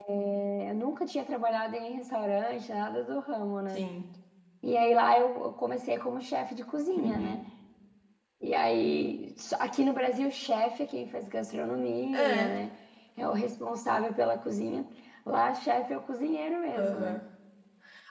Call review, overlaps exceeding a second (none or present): none